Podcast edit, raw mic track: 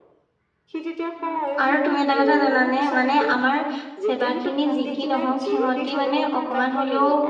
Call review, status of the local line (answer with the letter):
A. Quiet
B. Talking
B